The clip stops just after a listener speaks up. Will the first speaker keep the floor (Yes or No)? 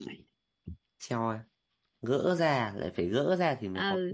No